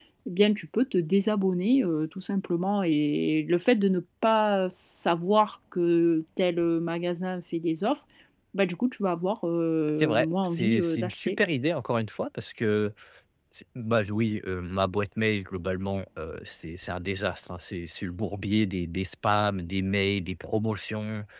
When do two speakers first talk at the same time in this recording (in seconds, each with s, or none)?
10.0 s